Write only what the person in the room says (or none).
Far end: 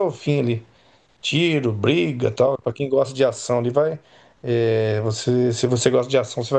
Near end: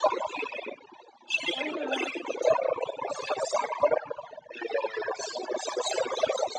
Aham.